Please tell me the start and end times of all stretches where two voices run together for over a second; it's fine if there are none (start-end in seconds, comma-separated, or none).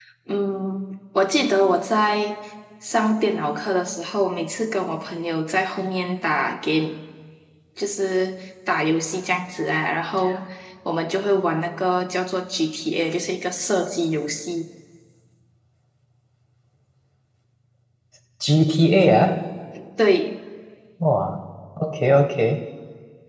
none